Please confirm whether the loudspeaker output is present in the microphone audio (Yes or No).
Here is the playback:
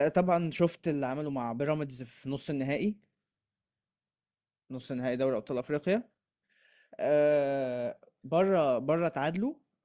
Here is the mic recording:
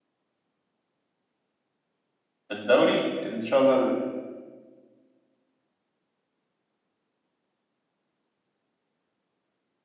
No